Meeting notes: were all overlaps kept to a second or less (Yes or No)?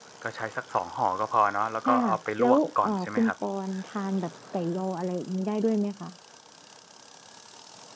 No